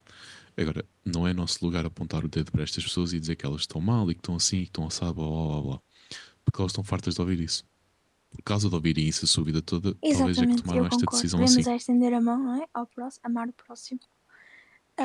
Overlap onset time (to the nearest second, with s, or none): 10 s